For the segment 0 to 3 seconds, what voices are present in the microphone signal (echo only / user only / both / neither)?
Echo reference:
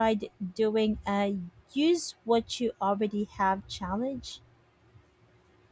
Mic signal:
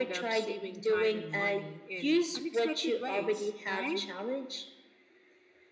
both